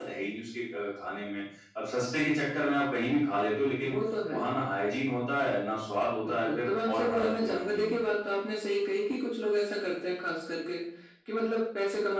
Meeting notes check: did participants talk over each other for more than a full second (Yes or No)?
Yes